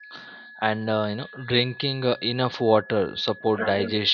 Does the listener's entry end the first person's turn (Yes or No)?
No